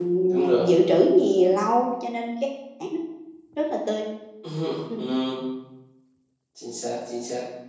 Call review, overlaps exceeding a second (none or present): none